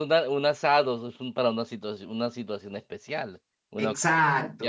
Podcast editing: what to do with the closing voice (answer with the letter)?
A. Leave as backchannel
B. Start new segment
A